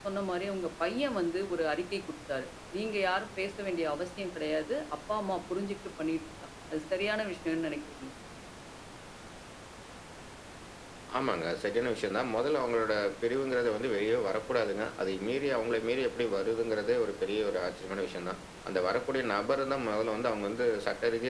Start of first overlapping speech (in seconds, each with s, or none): none